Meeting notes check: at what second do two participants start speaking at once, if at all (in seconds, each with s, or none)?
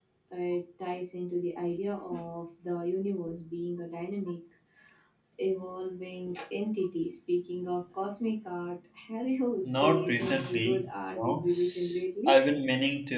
9.6 s